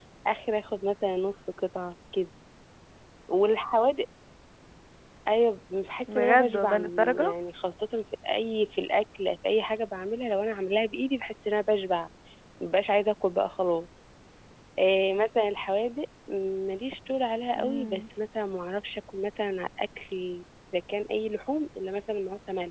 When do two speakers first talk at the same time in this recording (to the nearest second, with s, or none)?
6 s